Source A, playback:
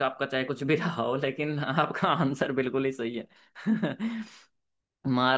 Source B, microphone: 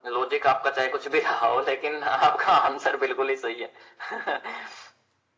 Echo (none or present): present